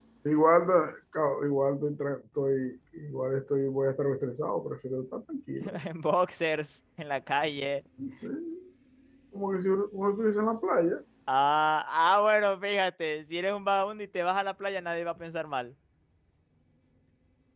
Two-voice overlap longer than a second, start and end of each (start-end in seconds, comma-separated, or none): none